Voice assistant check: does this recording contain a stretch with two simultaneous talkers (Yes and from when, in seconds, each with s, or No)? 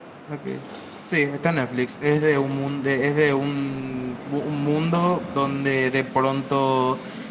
No